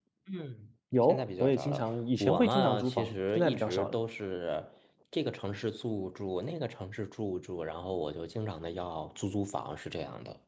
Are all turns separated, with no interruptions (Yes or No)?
No